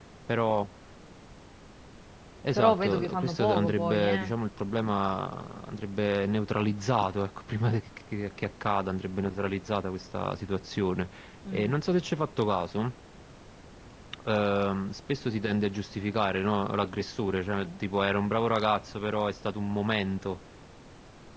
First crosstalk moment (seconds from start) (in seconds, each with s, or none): 2.5 s